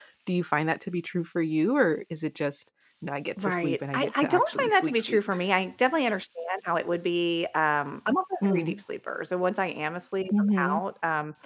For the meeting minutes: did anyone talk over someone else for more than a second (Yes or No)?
Yes